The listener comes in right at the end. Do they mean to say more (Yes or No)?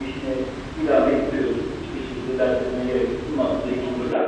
Yes